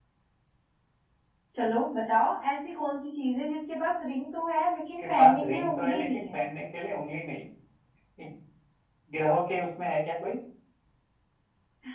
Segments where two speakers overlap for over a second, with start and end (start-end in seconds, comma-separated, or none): 5.0-6.4